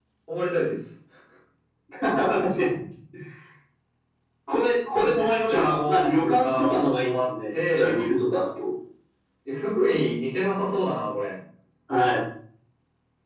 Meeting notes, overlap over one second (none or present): present